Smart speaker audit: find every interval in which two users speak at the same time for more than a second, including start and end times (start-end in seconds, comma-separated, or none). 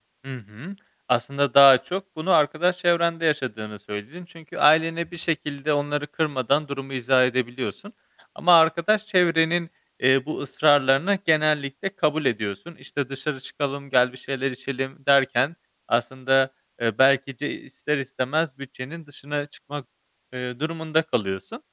none